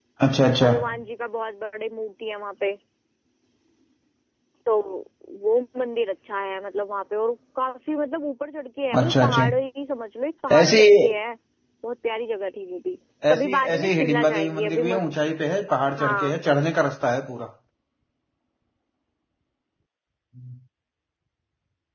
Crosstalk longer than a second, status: present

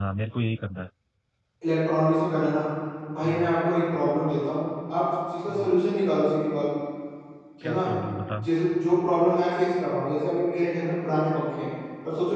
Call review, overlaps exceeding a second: none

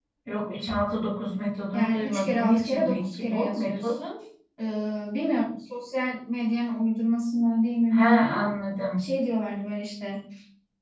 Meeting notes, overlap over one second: present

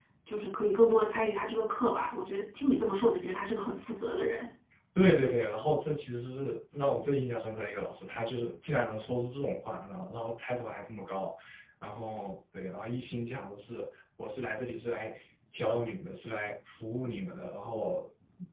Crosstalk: none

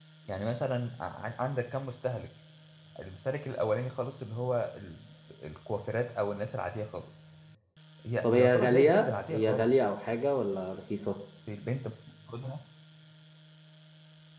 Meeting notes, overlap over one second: present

